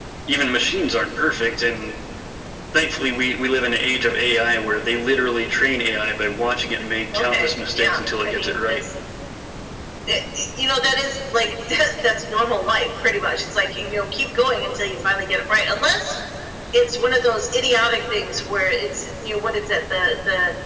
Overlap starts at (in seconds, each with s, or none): 7.1 s